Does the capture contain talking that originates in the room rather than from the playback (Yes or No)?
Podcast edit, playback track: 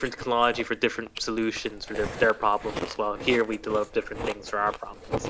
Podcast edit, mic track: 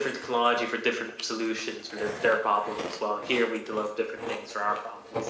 No